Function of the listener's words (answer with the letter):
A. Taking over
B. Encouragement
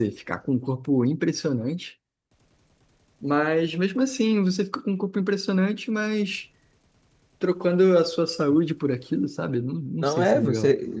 A